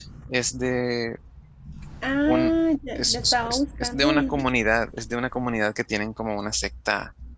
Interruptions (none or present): present